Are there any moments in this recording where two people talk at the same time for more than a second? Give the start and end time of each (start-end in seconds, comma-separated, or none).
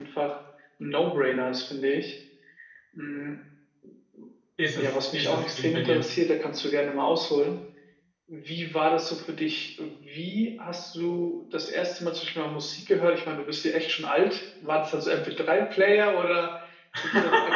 4.7-6.1